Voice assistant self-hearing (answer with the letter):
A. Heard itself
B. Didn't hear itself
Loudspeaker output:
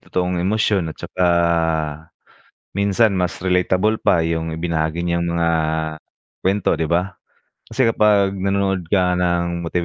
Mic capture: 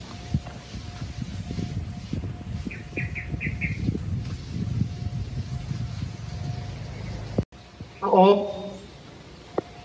B